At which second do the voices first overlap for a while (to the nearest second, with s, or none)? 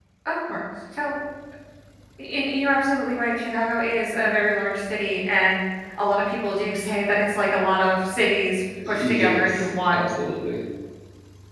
9 s